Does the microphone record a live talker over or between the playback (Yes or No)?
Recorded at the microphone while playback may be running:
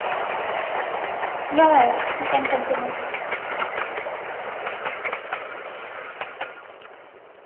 Yes